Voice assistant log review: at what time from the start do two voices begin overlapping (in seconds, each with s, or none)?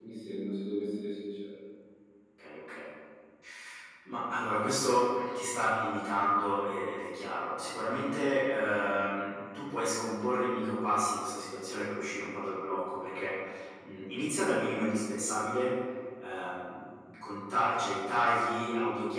none